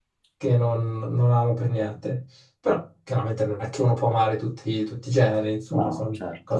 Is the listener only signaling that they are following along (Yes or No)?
Yes